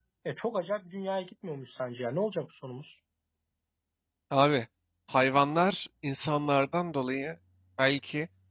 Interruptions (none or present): none